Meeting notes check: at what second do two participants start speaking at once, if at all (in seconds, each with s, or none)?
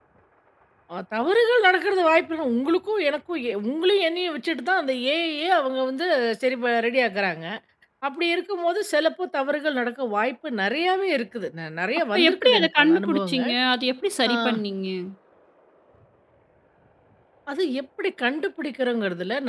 12.1 s